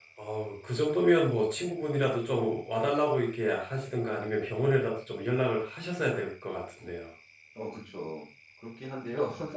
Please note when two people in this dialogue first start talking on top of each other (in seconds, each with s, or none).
none